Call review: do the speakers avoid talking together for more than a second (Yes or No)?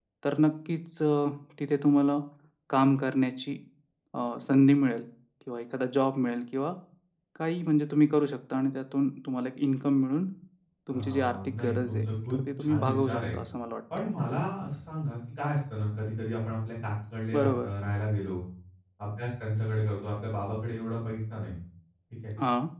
No